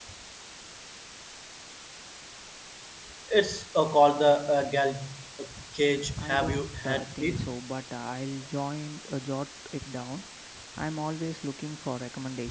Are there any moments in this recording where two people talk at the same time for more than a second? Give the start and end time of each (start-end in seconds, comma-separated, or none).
6.2-7.5